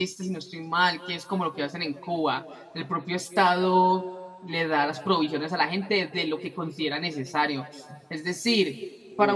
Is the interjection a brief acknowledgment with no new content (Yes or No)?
Yes